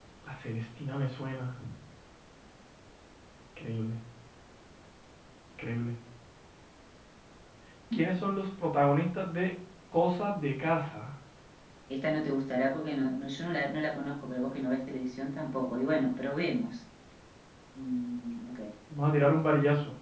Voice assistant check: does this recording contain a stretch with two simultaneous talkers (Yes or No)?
No